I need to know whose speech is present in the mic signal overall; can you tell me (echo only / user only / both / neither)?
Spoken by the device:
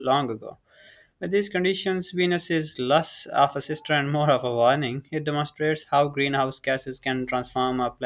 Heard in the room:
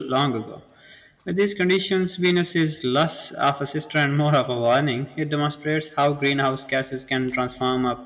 echo only